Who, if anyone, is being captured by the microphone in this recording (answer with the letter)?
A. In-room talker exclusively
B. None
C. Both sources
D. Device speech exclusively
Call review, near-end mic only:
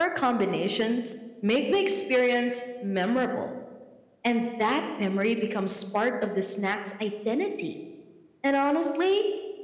A